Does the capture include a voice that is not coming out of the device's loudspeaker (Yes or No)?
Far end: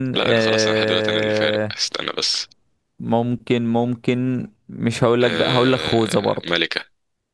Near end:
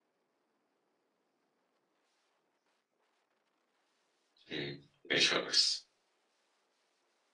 Yes